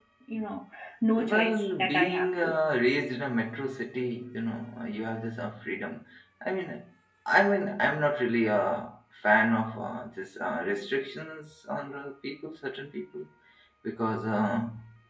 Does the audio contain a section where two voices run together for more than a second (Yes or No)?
Yes